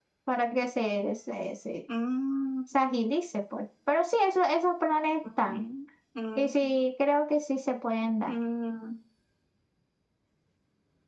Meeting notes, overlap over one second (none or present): none